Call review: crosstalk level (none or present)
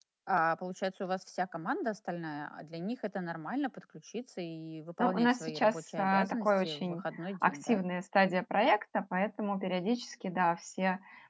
present